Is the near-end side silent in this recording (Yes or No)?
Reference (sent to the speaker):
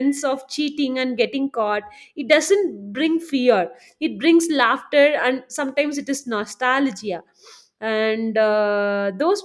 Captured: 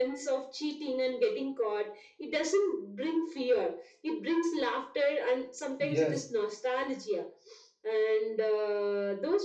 No